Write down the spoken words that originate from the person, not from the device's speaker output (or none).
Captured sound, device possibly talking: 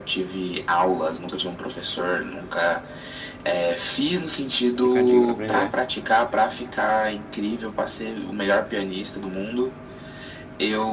Demora um cadinho pra aprender.